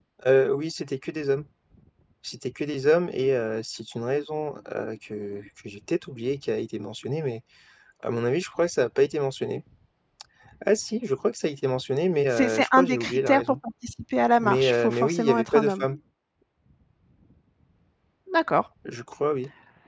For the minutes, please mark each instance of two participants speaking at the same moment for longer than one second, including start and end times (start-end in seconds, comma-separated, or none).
12.3-13.6, 14.4-15.8